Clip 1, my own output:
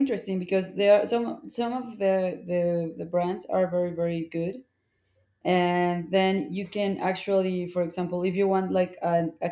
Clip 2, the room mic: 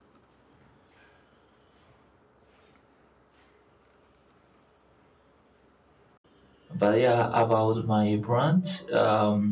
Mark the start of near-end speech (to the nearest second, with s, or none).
7 s